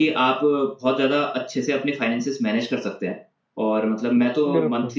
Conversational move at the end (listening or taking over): listening